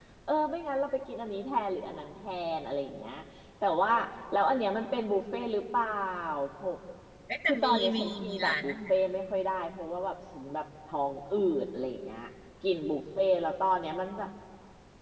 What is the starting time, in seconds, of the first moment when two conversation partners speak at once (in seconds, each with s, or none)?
7.5 s